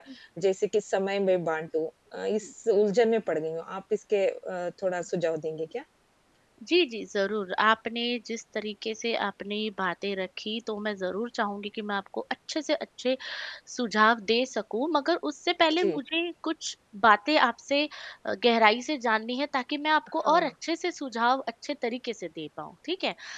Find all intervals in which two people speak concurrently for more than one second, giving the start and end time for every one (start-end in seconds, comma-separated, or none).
none